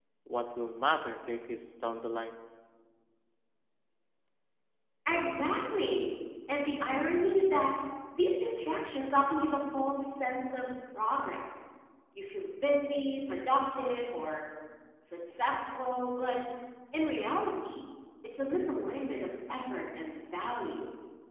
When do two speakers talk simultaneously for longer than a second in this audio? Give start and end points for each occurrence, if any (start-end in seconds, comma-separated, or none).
none